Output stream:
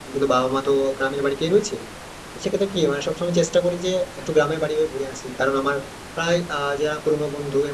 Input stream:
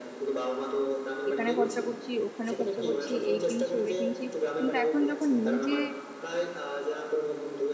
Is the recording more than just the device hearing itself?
Yes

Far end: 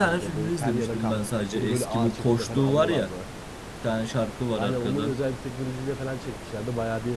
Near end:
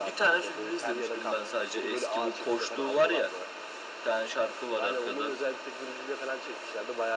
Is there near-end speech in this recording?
No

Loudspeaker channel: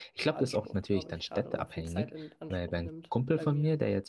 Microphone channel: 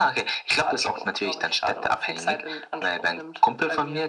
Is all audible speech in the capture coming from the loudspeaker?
Yes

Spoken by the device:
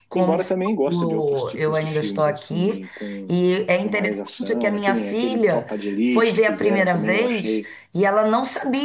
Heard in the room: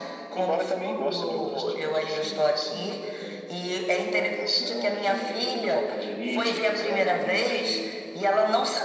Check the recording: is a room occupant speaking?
No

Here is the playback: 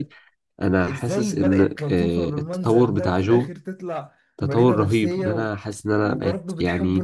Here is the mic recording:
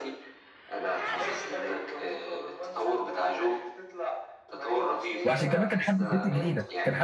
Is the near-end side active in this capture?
Yes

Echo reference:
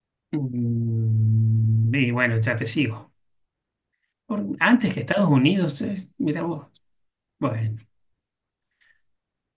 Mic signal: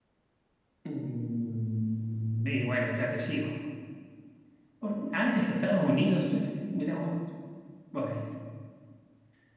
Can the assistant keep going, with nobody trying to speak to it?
Yes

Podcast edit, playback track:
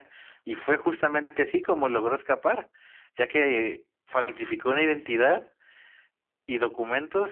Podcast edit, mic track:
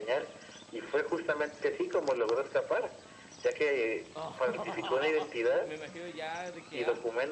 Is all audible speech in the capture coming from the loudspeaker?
No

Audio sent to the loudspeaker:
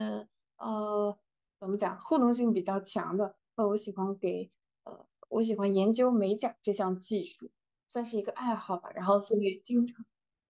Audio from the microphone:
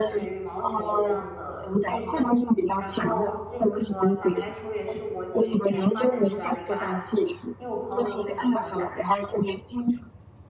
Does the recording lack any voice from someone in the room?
No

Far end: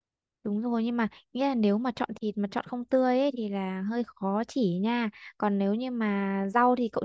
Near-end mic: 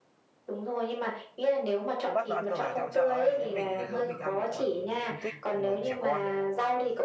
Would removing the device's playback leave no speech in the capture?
No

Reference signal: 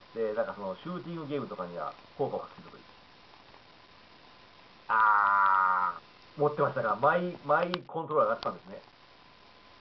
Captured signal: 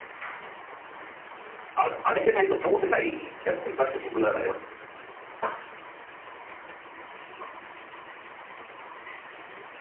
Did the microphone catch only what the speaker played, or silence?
No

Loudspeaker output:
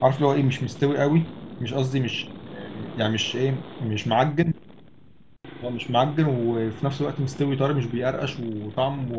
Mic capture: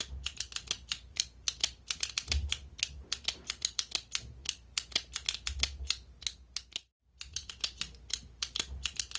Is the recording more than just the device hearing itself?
No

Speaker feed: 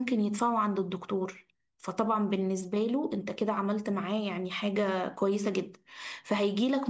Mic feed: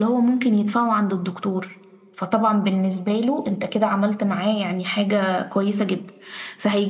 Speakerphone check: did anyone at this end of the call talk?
No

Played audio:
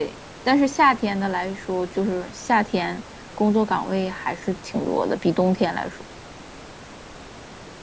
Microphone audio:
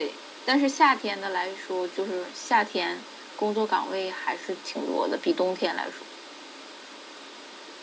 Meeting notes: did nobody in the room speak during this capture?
Yes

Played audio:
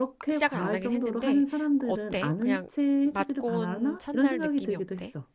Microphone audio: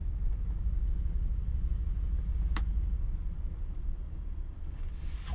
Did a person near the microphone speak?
No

